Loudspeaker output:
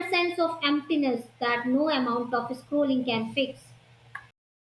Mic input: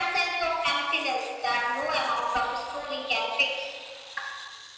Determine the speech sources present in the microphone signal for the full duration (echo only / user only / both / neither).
echo only